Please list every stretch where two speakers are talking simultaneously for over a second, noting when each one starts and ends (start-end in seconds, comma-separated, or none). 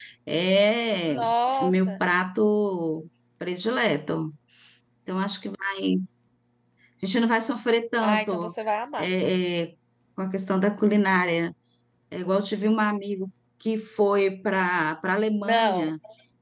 none